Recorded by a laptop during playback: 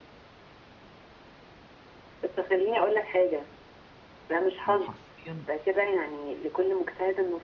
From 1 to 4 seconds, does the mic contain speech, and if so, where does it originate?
echo only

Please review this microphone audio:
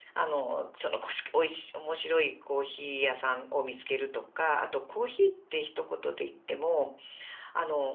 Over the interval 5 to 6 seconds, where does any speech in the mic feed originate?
user only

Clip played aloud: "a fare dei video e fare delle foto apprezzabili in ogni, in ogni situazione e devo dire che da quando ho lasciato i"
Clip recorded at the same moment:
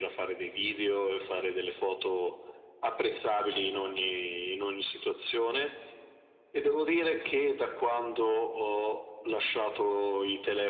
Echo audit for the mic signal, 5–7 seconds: echo only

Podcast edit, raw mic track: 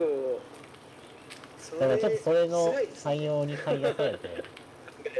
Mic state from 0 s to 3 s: both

